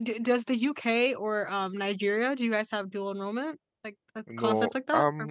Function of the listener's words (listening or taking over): taking over